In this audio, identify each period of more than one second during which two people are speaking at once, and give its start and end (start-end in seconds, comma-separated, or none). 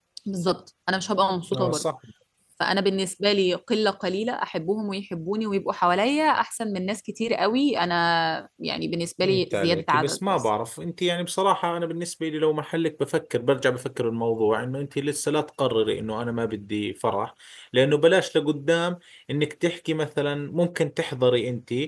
9.2-10.5